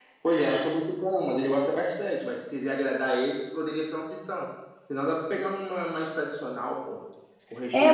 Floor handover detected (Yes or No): Yes